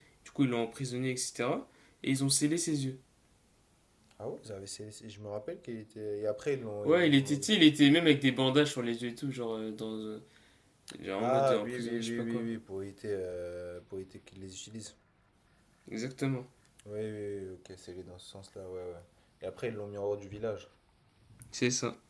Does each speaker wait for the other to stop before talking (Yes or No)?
No